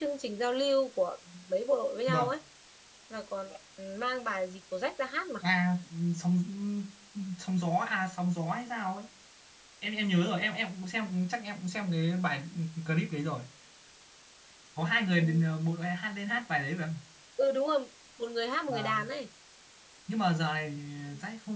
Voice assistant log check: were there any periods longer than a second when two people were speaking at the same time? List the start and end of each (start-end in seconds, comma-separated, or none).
none